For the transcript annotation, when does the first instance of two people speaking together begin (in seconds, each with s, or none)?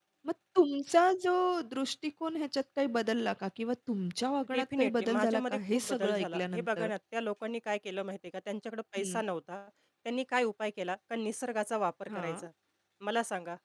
4.5 s